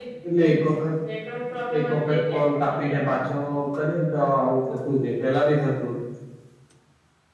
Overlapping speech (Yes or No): Yes